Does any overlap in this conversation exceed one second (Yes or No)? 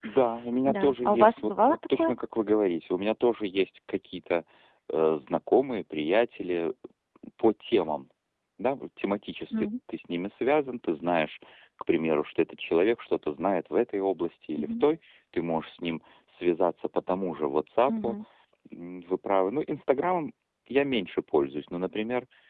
Yes